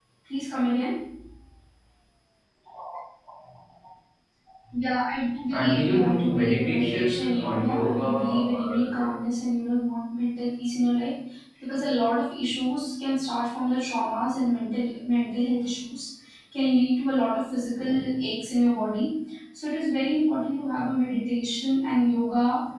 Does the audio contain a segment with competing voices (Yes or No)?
Yes